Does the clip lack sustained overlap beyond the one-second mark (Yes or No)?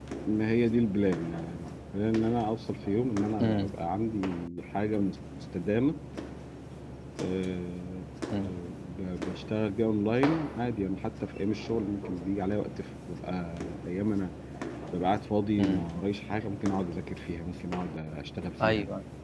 Yes